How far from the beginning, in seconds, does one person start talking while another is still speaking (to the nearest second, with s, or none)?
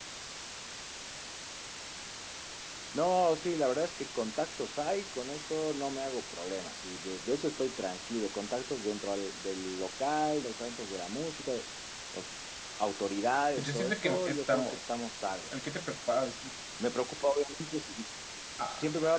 14 s